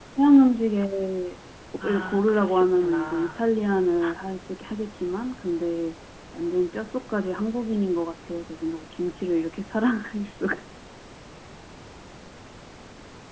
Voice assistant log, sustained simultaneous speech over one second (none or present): present